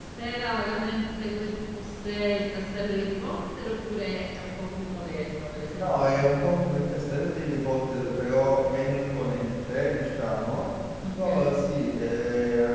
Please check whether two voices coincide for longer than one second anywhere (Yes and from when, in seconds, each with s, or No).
No